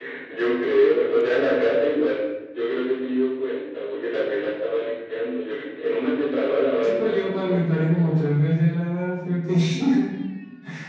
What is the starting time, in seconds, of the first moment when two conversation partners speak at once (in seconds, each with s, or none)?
6.8 s